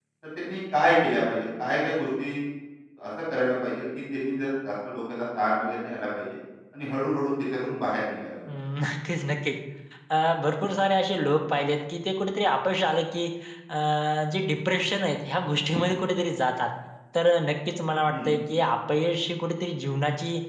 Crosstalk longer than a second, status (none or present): none